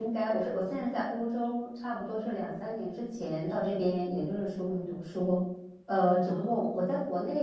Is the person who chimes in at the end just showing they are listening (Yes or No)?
Yes